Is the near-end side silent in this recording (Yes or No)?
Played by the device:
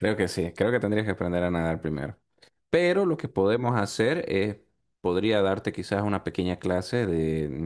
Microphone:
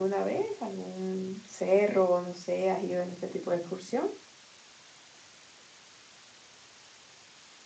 No